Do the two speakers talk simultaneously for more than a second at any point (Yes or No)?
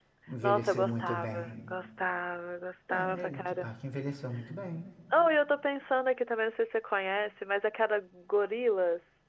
Yes